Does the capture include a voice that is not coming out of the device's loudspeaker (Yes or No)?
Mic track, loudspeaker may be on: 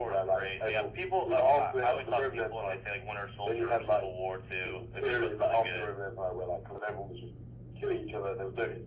No